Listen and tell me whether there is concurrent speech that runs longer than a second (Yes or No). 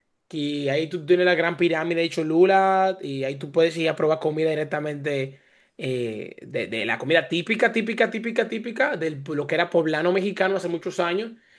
No